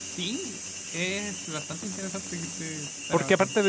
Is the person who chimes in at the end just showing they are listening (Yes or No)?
No